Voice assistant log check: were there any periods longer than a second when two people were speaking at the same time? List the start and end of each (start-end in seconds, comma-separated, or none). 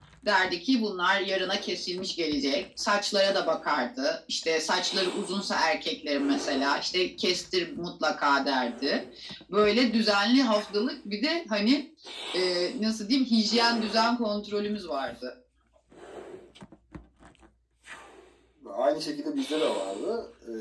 none